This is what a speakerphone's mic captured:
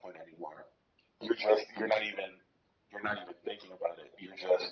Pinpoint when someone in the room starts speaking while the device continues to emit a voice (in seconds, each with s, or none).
none